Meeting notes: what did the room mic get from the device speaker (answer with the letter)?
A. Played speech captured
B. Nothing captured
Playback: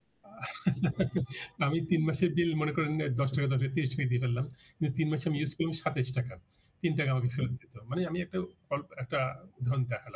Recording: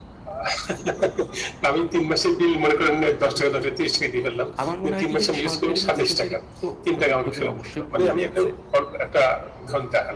A